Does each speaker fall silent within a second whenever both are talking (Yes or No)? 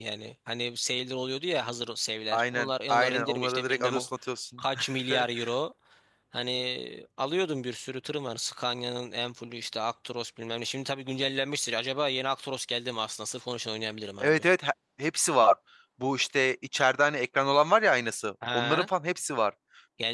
No